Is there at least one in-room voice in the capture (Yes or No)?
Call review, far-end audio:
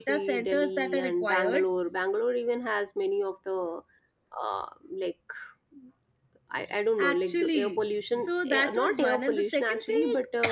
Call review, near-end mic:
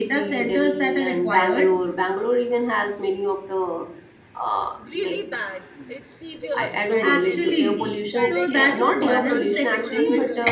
Yes